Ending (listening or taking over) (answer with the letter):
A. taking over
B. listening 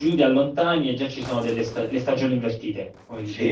A